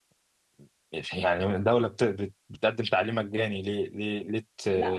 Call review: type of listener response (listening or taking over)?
taking over